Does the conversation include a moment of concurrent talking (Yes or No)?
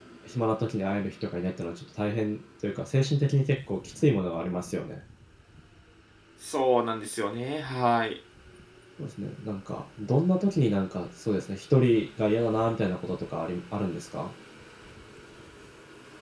No